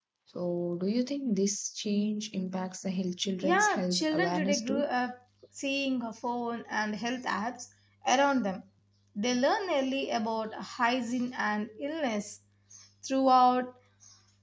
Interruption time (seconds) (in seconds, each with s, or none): 3.4 s